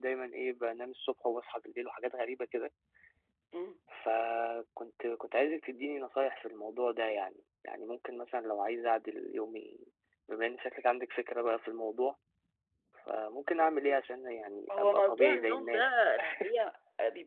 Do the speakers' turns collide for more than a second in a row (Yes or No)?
Yes